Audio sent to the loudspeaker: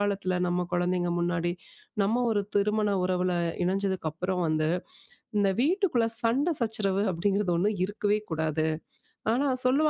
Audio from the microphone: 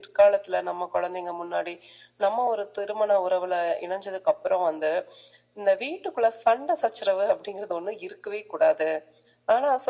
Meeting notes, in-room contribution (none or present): none